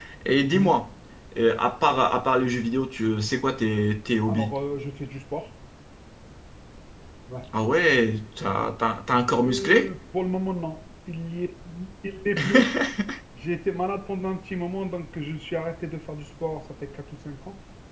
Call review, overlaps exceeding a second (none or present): none